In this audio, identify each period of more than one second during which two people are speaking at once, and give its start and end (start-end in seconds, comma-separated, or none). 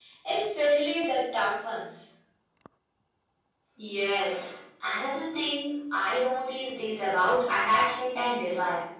none